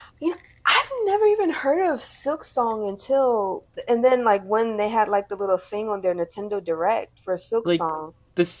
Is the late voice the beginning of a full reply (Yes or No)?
Yes